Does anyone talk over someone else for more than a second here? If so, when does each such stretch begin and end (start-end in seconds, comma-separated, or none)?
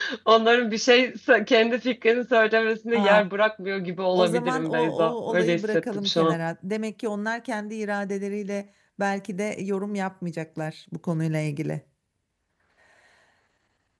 4.2-6.4